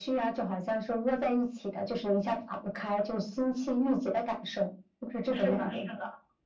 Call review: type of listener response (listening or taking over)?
taking over